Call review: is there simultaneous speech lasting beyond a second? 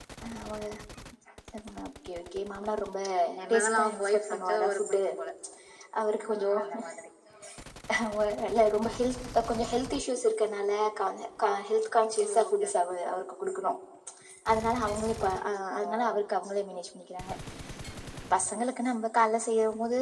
Yes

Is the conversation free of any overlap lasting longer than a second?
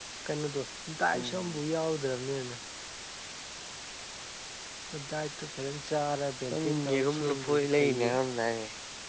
No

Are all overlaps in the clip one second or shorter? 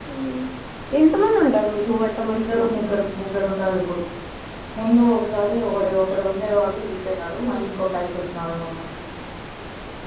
Yes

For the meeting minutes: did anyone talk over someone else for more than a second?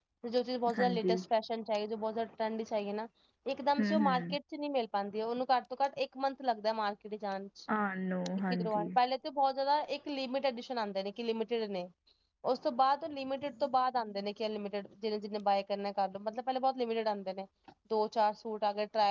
No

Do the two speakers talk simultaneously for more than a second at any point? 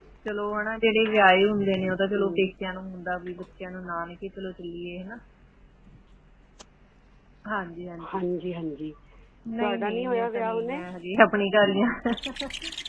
Yes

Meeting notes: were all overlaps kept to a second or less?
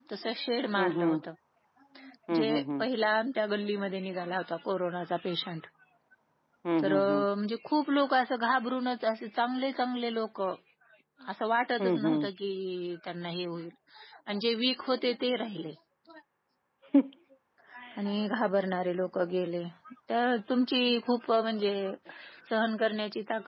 Yes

